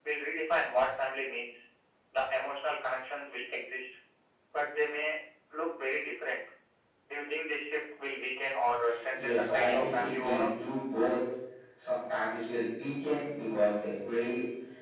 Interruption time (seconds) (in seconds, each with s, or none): 9.2 s